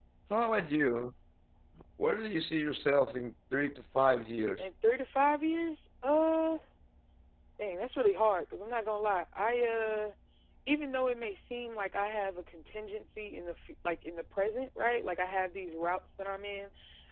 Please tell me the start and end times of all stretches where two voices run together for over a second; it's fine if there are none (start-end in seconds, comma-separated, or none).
none